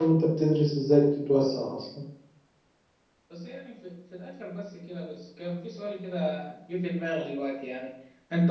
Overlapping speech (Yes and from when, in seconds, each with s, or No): No